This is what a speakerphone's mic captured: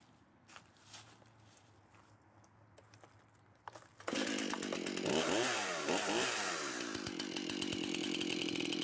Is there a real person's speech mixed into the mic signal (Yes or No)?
No